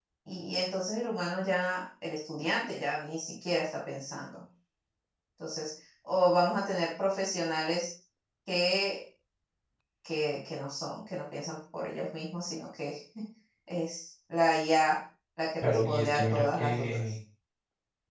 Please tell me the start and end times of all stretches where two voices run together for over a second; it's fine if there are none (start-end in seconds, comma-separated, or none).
15.6-17.0